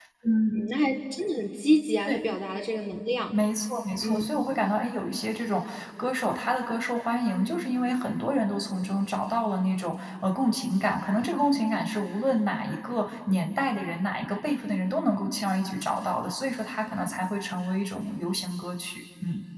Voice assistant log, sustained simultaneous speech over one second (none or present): none